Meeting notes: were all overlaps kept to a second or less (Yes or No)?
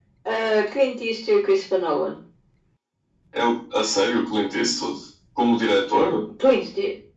Yes